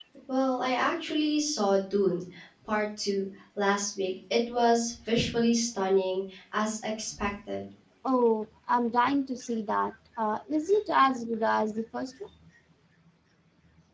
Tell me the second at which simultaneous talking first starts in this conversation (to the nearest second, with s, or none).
none